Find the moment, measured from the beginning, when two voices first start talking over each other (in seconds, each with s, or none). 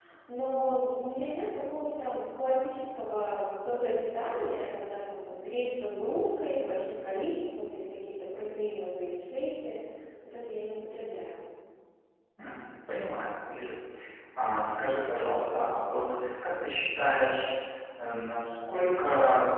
none